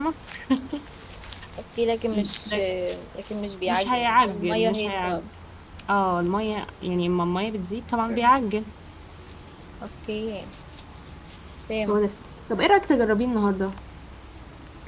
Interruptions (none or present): present